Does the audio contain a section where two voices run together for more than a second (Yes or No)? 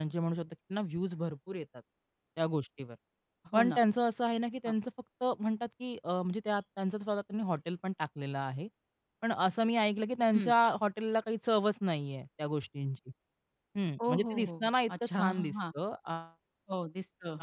Yes